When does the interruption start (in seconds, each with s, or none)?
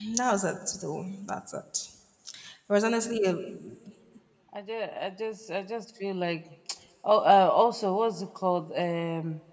none